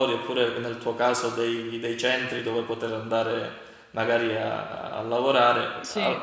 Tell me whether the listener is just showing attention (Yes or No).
Yes